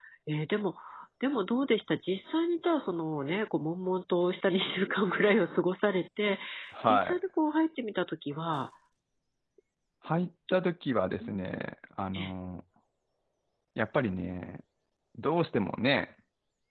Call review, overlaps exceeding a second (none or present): none